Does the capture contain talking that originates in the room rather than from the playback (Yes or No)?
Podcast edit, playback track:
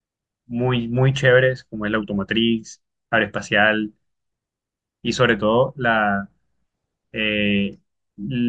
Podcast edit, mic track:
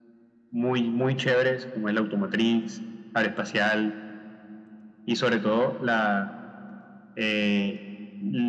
No